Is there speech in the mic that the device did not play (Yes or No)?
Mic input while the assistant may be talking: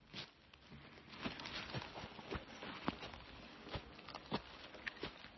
No